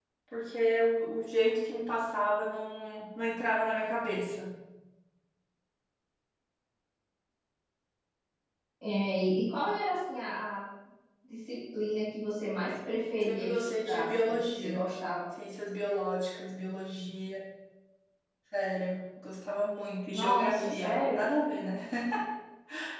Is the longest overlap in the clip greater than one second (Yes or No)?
Yes